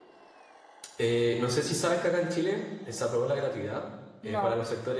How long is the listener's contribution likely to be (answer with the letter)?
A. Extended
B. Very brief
B